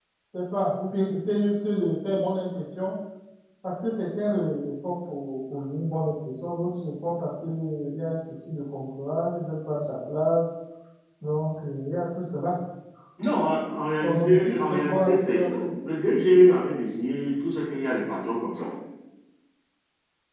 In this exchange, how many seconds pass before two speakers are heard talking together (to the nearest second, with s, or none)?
14 s